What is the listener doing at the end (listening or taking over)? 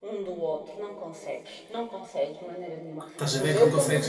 taking over